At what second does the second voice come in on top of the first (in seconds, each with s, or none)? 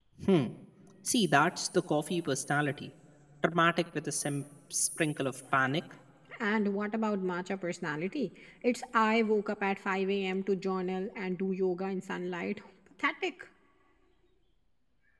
none